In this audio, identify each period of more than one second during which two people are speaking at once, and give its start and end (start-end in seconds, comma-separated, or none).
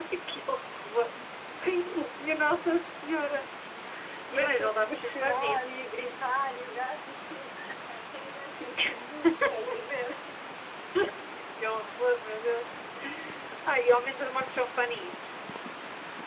4.4-5.6